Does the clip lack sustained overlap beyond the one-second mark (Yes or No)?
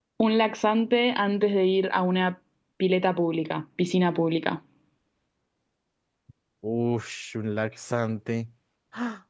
Yes